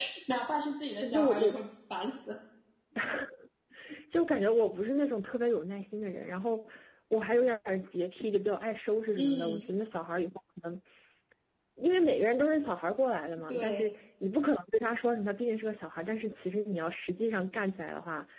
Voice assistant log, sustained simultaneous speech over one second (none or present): none